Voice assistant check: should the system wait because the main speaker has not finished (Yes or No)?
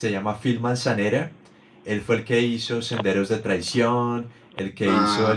No